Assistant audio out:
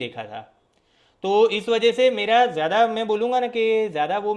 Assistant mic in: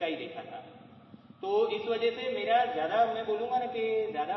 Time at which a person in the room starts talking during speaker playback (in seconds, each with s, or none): none